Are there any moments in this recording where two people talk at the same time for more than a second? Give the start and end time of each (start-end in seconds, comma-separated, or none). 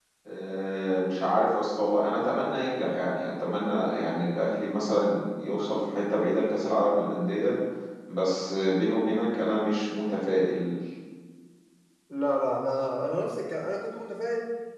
none